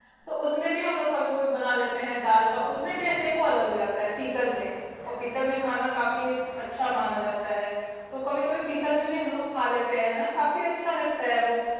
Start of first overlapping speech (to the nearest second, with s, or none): none